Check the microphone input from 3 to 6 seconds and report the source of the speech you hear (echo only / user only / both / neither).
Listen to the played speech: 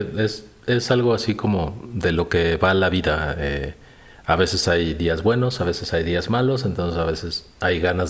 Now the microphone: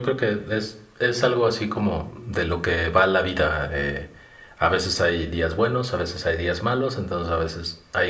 echo only